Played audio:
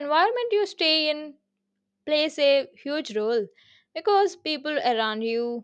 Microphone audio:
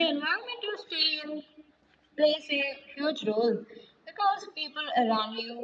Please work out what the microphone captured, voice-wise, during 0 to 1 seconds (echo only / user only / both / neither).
echo only